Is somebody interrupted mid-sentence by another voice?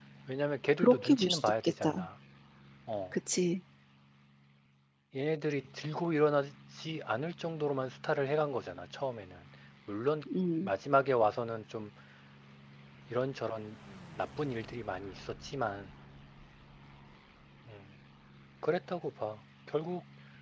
Yes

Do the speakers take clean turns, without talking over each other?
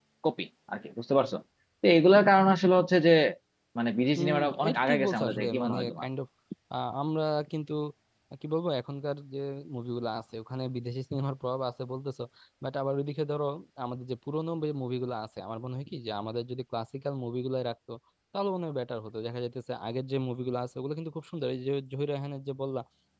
No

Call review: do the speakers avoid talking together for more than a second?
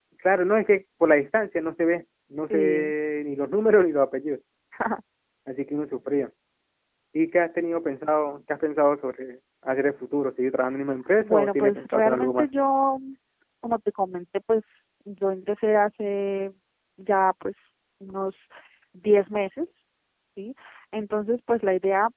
No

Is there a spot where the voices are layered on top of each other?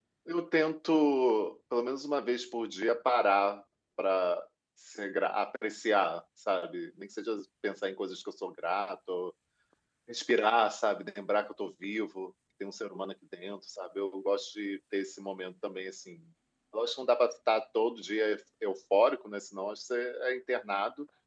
No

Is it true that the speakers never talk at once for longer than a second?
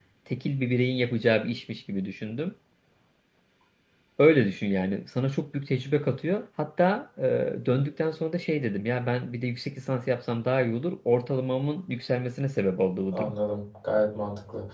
Yes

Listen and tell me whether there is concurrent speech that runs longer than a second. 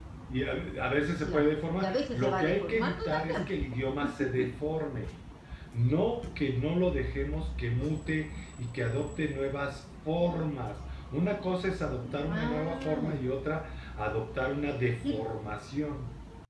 Yes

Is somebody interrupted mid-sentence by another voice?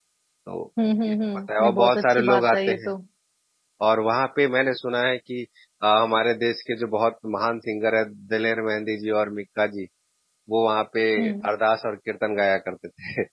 Yes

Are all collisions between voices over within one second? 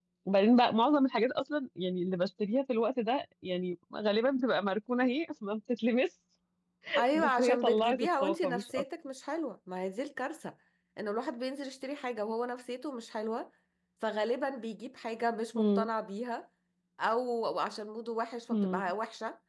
No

